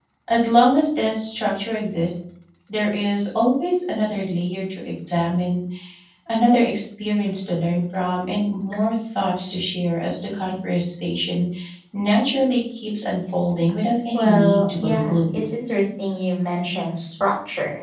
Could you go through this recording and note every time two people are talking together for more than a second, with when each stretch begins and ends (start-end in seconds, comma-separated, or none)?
14.1-15.5